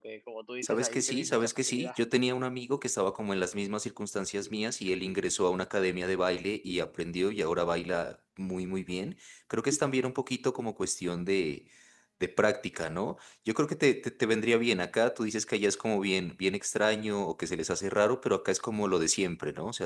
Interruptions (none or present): present